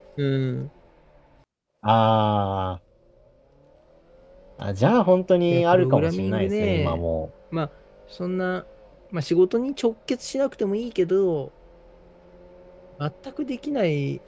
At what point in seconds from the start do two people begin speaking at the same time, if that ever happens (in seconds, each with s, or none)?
5.5 s